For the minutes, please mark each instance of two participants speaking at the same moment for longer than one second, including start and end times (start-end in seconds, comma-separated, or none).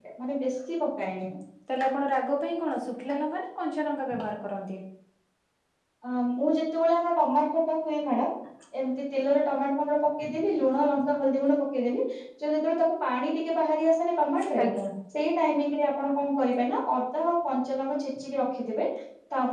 none